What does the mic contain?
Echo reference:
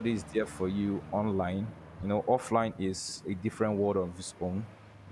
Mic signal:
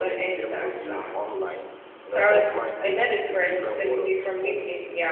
both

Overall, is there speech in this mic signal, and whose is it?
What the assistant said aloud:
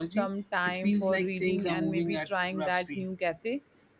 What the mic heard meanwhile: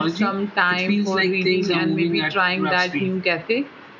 echo only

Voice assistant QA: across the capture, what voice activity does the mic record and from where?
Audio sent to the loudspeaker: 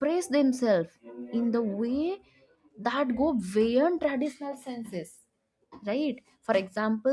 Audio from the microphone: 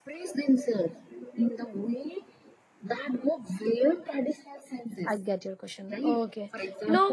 both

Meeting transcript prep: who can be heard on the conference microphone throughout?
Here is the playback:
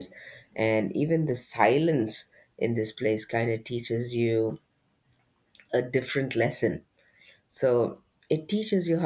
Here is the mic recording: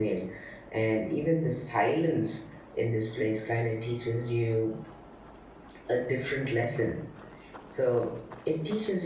echo only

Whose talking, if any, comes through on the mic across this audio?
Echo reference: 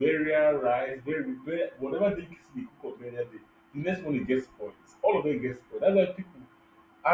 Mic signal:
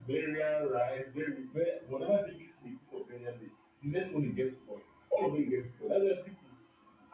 echo only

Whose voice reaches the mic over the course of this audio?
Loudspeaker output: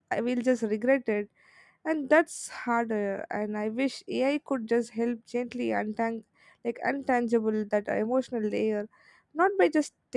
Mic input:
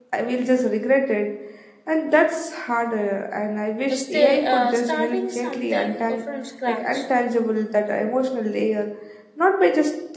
both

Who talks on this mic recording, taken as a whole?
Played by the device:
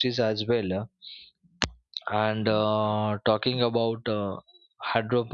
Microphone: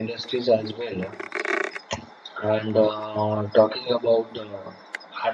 echo only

